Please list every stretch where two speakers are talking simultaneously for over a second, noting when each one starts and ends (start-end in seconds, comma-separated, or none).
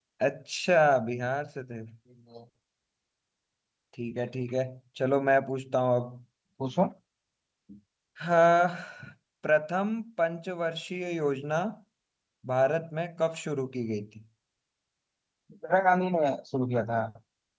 none